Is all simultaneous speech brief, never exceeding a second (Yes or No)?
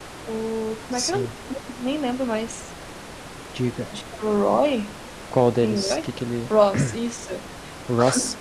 Yes